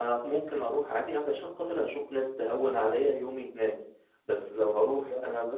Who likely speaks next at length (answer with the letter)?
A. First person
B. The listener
A